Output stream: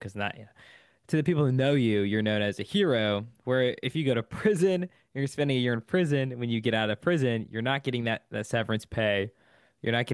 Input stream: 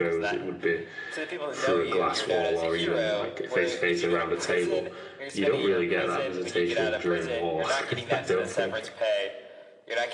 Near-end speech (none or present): present